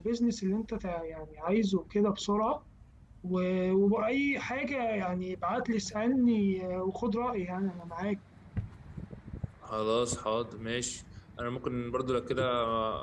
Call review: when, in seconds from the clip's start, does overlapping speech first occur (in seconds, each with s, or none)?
none